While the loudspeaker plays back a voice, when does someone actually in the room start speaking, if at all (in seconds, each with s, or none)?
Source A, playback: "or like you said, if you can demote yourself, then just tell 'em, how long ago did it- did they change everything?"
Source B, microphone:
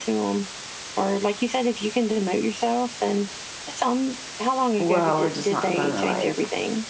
4.8 s